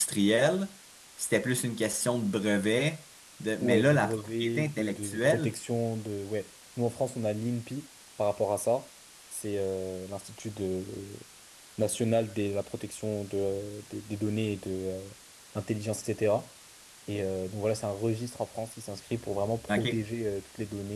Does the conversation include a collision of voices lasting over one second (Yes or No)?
Yes